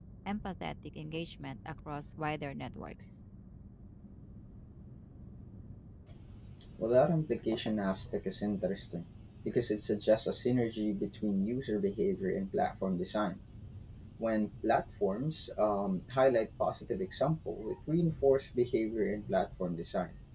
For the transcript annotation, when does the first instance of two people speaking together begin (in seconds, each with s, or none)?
none